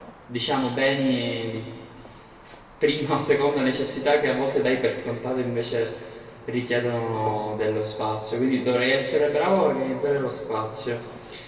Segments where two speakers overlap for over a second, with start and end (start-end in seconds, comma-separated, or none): none